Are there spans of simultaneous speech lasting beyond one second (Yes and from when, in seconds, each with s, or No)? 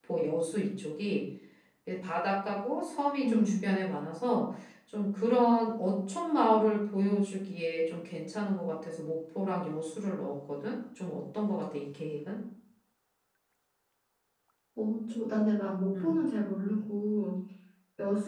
No